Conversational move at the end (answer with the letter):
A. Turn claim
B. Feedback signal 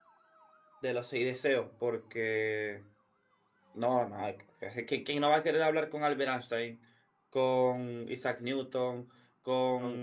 B